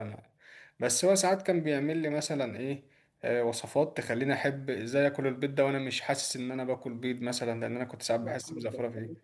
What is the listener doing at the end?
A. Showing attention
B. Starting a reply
B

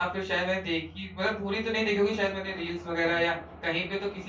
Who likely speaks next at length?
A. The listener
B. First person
B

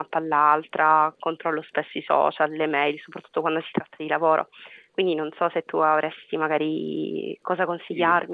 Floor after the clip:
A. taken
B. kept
A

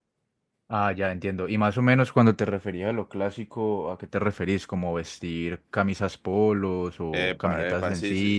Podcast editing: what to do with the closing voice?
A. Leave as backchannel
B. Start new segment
B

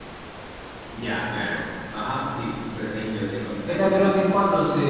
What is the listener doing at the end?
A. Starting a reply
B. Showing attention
A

